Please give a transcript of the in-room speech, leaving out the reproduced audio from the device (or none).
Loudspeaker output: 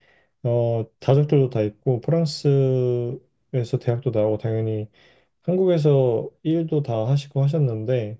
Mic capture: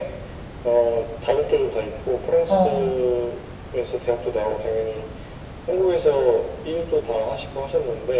어.